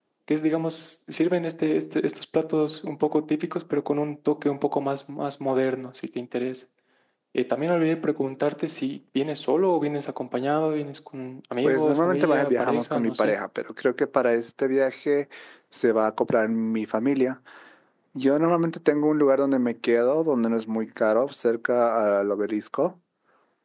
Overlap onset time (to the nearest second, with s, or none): 12 s